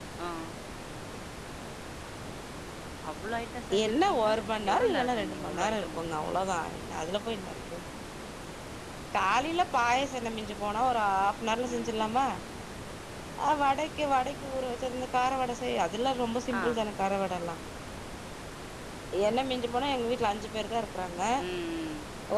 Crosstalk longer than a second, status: present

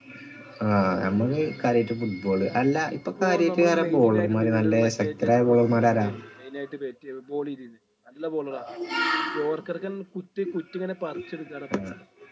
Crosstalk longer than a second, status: present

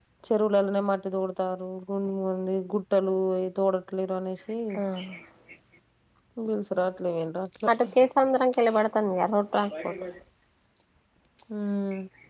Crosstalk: none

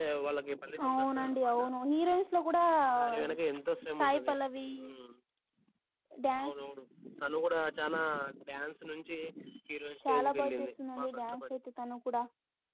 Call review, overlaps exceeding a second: present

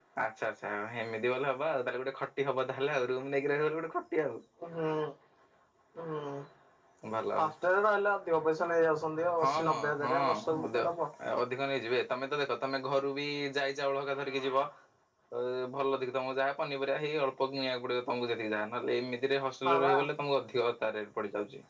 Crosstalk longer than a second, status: present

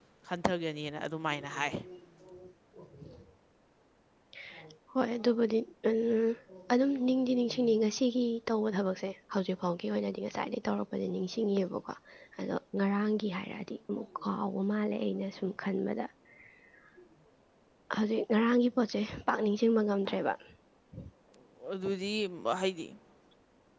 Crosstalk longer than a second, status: none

